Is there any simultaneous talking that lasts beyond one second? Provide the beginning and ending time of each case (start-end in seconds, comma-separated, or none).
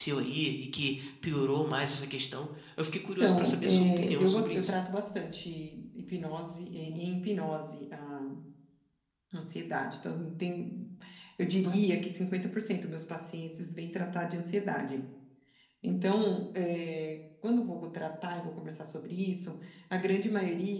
3.2-4.7